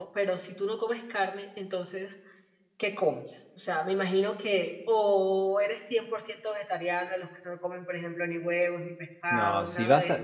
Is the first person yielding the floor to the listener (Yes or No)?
Yes